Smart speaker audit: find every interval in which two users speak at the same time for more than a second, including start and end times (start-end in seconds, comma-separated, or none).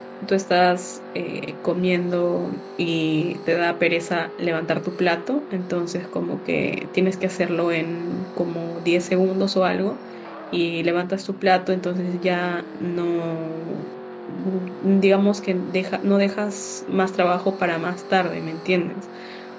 none